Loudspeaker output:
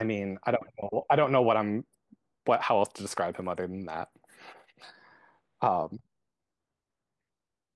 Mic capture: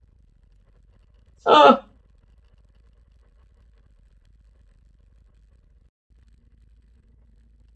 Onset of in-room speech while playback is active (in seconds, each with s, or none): 1.4 s